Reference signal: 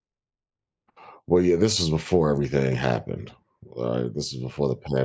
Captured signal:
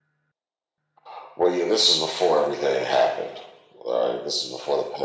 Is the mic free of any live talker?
Yes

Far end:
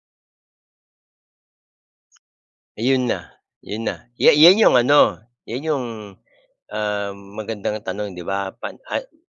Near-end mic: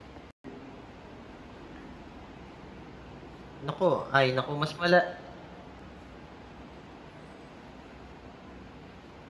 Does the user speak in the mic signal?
Yes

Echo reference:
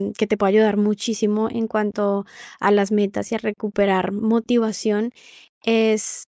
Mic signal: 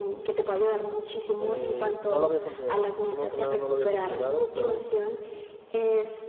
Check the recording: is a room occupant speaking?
Yes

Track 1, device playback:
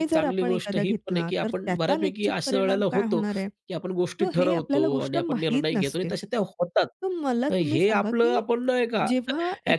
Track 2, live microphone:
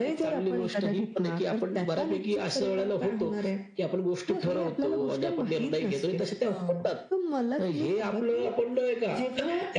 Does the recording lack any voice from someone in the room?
No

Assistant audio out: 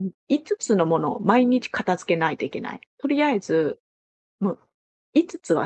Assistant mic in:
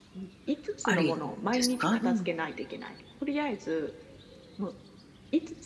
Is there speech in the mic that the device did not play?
Yes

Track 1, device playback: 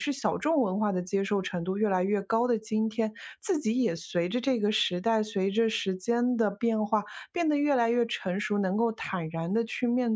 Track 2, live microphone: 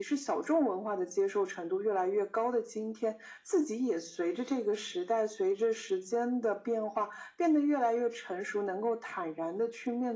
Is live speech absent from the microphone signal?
Yes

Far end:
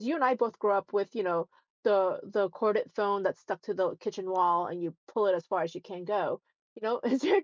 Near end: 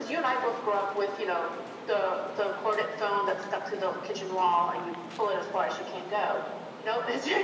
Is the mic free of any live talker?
Yes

